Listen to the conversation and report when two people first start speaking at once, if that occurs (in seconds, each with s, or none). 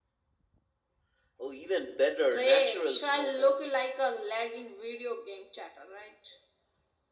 2.3 s